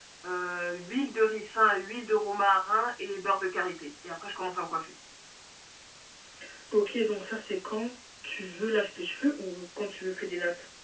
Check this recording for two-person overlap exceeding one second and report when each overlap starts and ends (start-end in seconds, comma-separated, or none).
none